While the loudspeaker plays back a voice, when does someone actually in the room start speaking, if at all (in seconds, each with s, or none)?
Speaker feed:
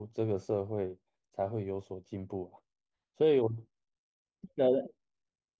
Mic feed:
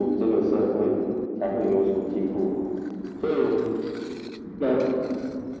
none